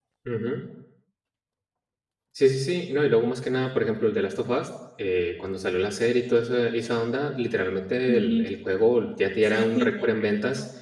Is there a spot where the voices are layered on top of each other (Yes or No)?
Yes